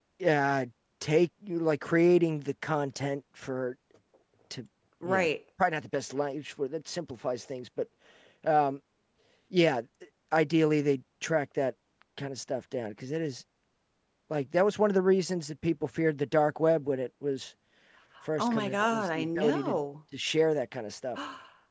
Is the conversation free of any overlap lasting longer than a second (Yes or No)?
No